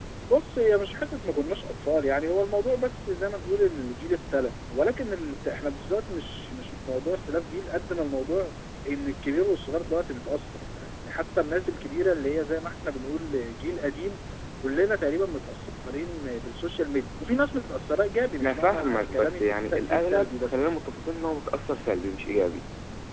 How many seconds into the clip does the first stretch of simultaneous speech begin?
18.4 s

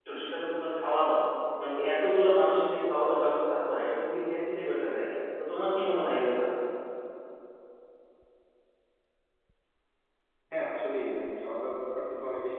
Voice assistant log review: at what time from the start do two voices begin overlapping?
none

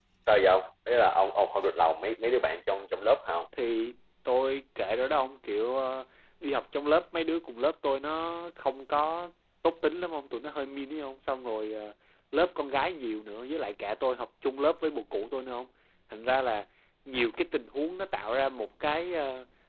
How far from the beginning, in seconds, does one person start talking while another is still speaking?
none

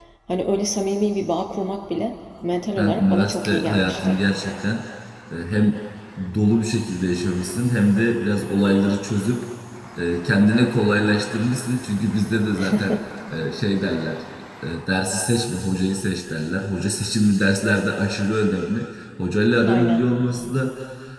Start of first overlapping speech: 2.8 s

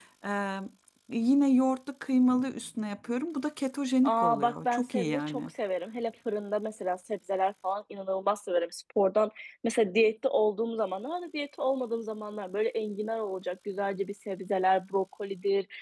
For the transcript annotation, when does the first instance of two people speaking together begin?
4.0 s

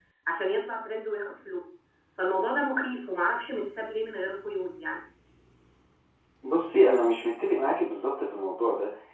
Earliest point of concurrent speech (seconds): none

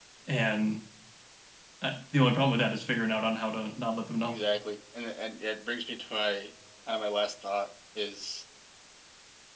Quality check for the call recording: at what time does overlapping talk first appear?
none

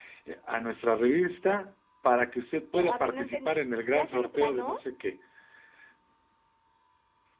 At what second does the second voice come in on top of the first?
2.8 s

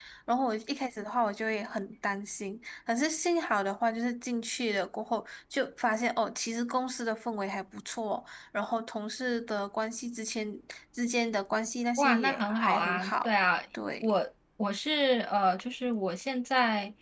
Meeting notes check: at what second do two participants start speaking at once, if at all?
12.0 s

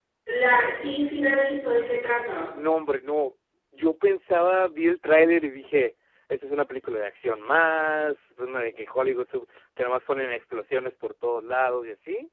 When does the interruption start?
none

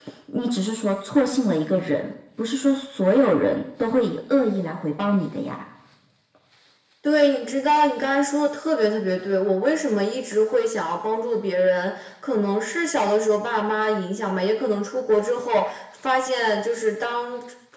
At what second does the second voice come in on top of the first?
none

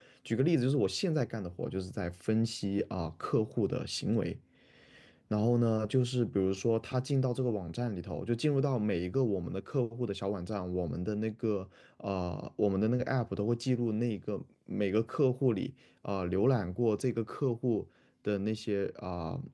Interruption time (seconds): none

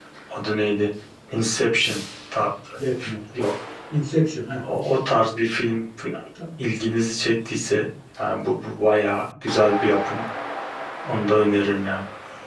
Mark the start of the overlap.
none

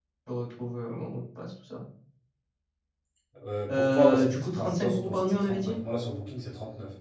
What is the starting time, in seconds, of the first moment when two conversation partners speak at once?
3.7 s

